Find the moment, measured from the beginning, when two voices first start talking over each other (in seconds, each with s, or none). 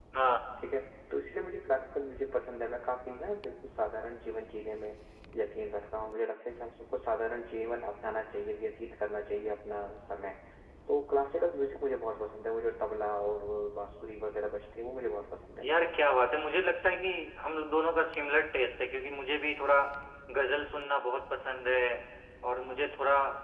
none